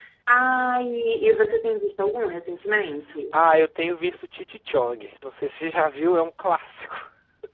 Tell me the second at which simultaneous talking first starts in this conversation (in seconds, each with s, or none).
none